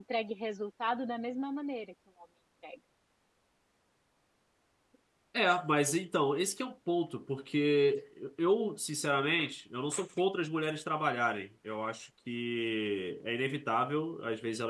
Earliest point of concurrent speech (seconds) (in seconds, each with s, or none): none